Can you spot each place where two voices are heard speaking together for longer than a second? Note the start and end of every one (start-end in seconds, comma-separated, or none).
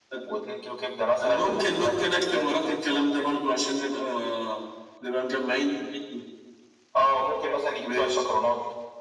1.2-3.3